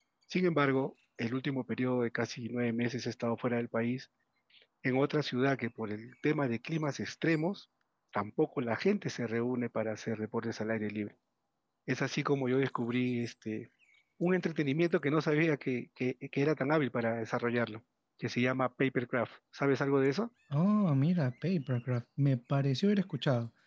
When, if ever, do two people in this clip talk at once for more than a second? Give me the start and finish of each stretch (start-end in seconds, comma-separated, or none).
none